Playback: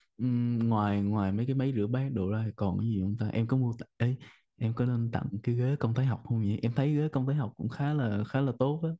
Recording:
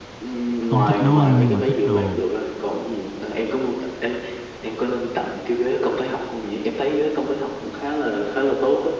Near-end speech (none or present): present